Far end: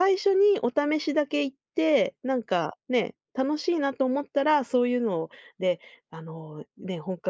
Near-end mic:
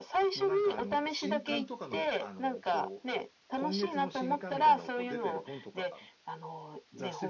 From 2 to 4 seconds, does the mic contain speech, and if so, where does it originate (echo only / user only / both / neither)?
both